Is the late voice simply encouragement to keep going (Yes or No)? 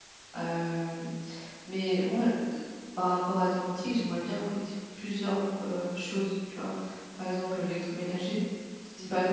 Yes